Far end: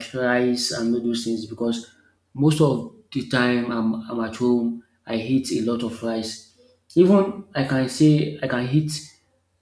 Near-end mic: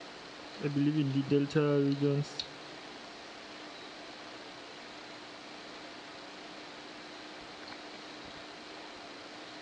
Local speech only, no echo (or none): I believe, in the delta regions.